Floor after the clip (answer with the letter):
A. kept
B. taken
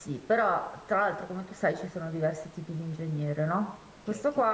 A